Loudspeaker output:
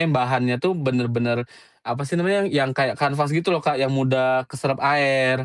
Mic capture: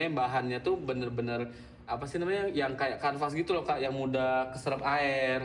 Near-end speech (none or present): none